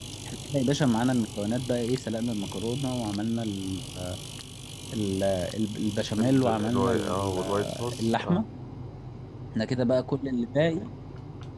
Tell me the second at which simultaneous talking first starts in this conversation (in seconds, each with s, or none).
6.2 s